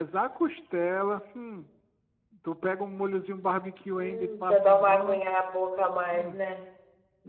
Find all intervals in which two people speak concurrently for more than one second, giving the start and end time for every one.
4.0-5.2

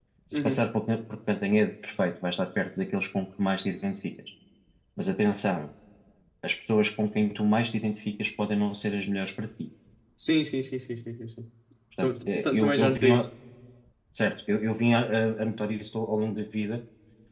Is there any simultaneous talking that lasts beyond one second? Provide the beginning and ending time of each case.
12.0-13.2

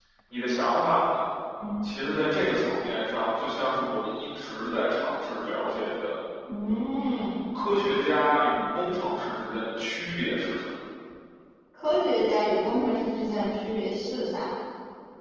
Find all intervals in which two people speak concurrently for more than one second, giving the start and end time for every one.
none

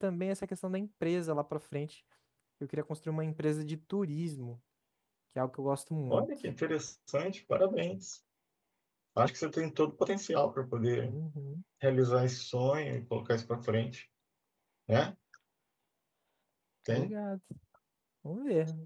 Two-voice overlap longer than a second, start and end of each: none

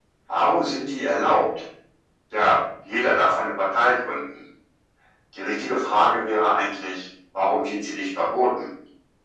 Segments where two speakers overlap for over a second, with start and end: none

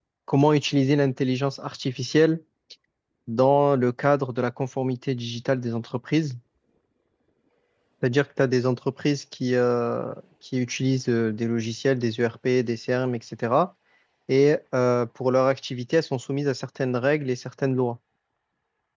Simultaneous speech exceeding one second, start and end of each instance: none

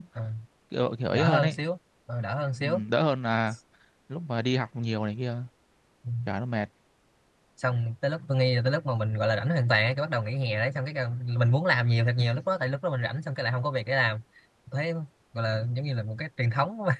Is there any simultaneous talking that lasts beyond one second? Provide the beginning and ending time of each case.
none

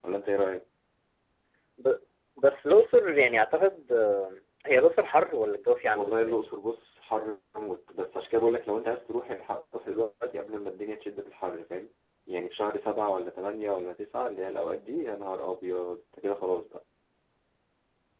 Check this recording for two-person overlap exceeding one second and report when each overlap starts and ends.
none

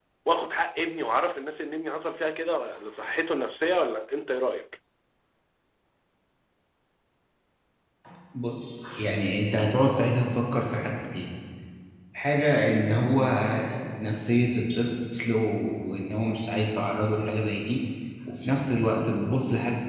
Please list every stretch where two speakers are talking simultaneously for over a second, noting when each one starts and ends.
none

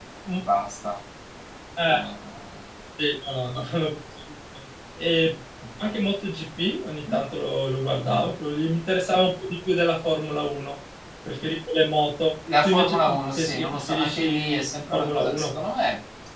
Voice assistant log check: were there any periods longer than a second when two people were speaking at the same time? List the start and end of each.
12.6-15.6

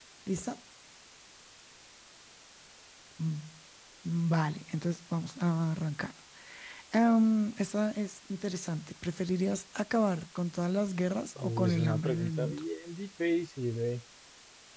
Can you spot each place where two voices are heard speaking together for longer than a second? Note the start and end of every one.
11.4-12.6

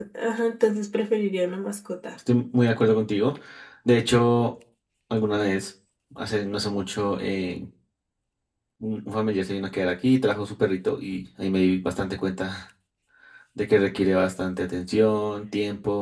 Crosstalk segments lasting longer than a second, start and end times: none

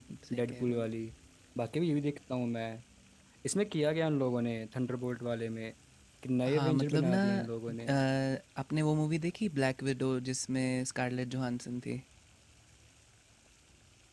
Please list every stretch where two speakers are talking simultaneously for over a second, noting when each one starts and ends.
6.5-7.9

